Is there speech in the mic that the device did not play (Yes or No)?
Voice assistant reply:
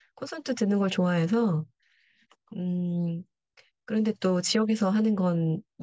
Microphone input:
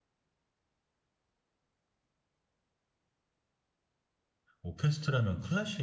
Yes